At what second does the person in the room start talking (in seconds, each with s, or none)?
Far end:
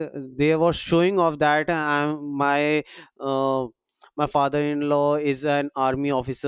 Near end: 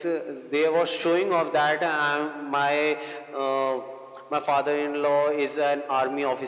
none